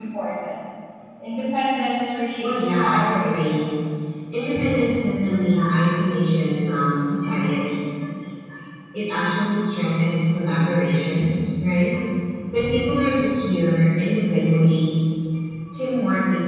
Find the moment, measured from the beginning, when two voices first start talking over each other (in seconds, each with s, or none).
2.4 s